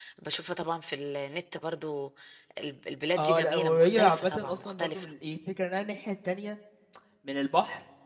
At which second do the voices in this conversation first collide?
3 s

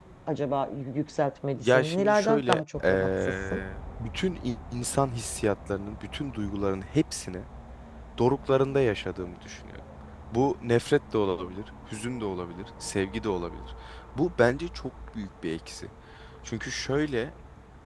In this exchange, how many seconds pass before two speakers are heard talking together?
2 s

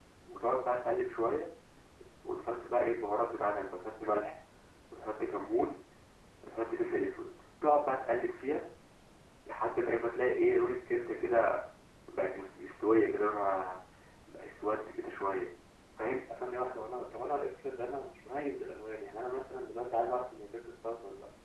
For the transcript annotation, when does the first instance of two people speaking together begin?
none

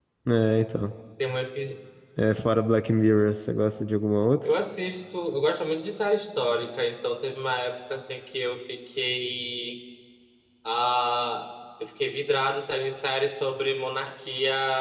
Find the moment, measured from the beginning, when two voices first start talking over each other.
none

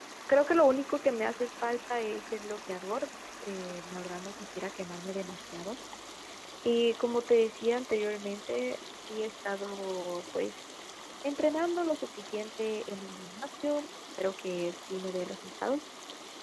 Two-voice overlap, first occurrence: none

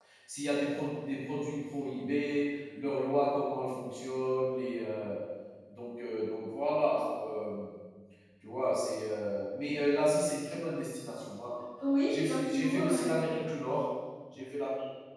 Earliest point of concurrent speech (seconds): 12 s

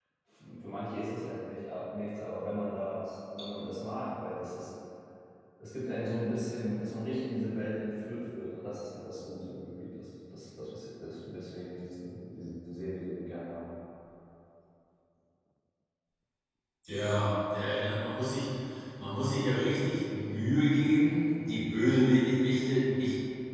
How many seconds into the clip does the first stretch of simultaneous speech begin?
none

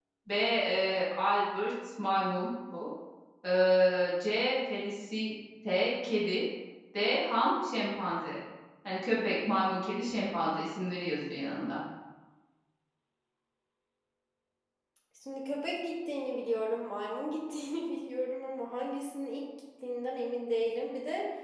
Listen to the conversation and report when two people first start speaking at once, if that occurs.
none

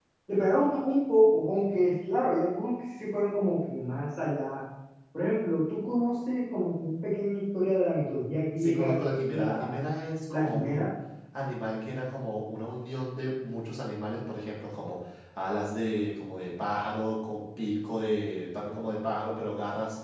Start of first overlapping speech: 9 s

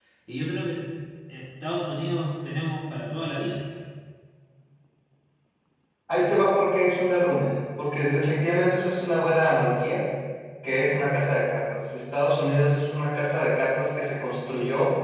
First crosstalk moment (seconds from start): none

